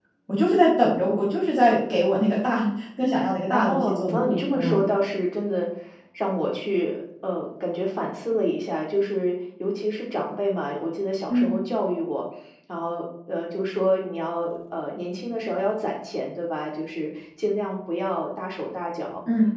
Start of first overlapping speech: 4 s

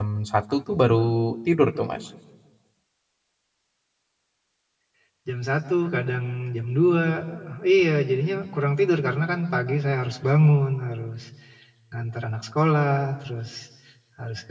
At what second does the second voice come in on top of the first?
none

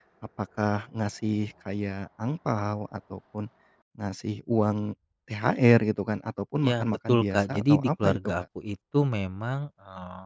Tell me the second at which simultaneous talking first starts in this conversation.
7 s

